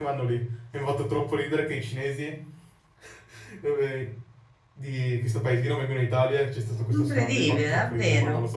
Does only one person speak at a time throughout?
No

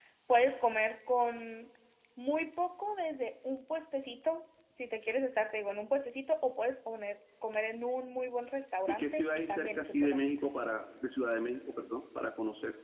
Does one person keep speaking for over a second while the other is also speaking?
Yes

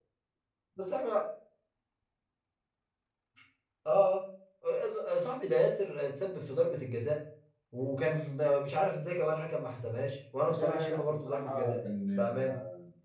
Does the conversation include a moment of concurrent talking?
Yes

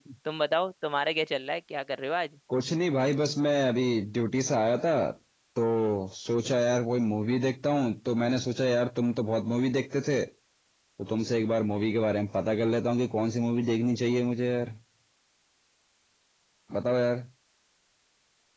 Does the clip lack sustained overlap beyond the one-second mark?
Yes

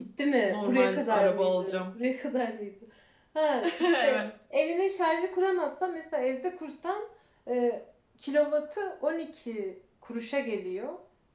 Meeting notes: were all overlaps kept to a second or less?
No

